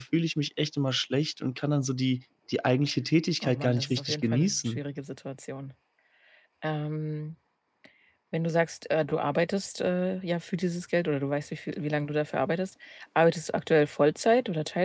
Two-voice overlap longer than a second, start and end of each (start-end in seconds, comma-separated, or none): 3.4-4.8